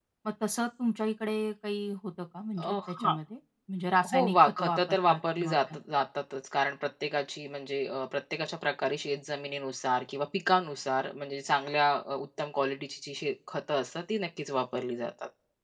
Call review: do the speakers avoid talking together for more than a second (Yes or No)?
No